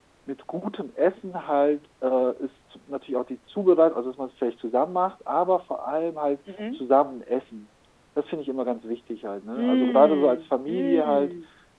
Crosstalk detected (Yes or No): Yes